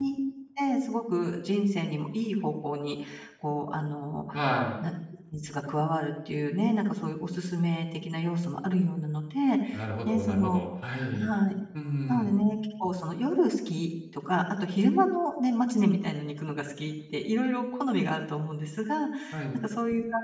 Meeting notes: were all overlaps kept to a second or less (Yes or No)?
Yes